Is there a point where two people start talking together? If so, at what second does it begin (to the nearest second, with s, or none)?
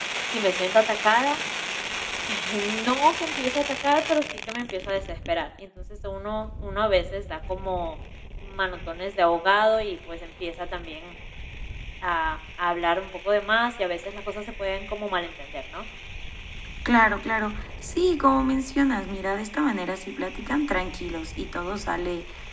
none